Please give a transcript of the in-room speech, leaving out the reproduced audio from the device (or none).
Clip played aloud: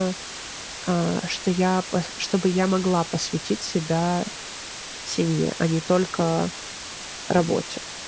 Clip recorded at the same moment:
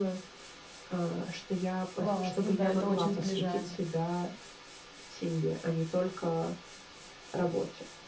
Классно, да, это очень сближает.